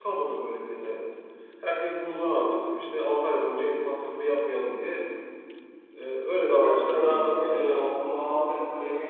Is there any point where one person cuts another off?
Yes, from 6.6 s

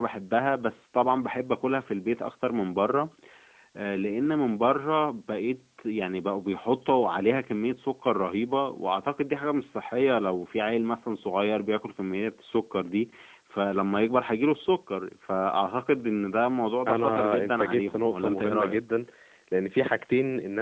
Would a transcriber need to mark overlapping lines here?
Yes, from 16.9 s

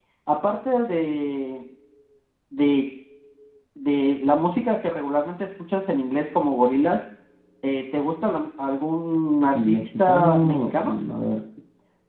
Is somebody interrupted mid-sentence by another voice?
Yes, from 9.5 s

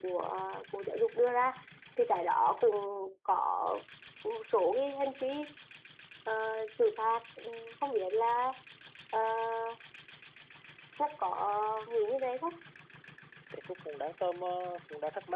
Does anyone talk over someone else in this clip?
No

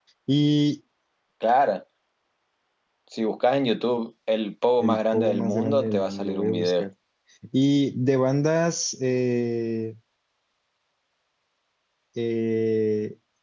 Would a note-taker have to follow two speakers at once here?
Yes, from 4.8 s

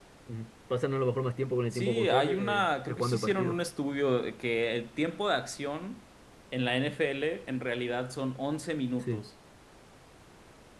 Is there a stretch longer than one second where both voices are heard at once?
Yes, from 1.7 s

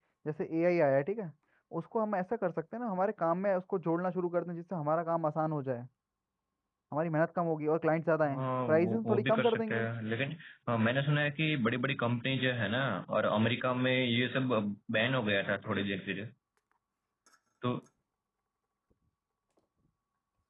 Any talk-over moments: Yes, from 8.2 s

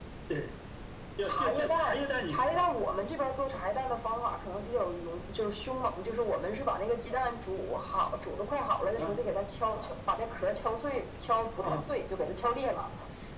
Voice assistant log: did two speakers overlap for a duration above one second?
Yes, from 1.2 s

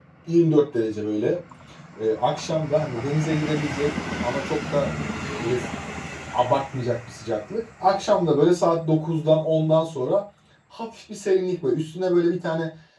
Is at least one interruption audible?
No

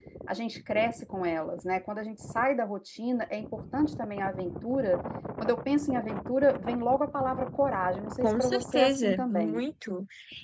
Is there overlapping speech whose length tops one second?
Yes, from 8.2 s

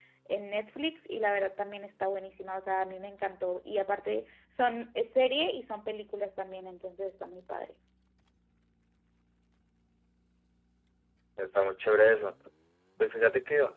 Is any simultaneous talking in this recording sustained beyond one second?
No

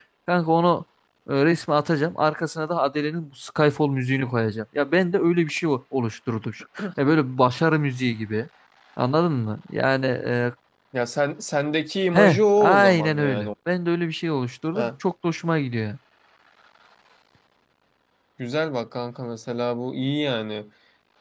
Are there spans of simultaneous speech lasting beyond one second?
Yes, from 12.1 s

